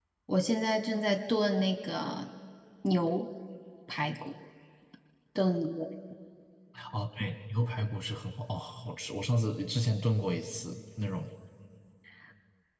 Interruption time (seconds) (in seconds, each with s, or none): none